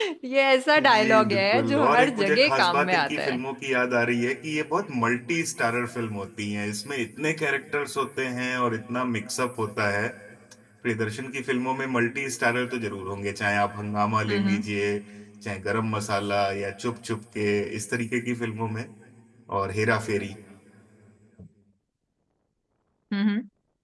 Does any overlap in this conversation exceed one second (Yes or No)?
Yes